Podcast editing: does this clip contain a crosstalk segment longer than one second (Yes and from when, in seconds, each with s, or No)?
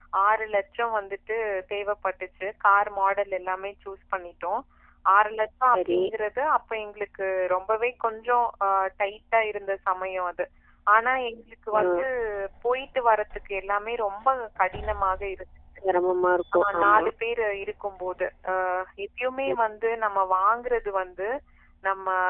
No